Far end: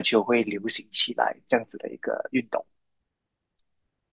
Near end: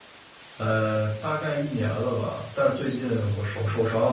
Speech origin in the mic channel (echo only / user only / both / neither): user only